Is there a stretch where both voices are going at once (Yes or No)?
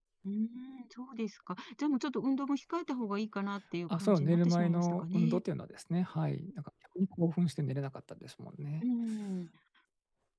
Yes